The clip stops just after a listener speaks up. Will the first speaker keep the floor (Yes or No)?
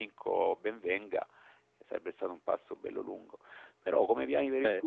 Yes